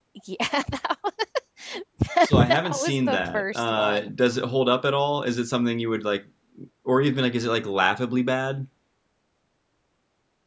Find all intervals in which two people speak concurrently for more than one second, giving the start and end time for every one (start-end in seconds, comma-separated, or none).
2.2-4.1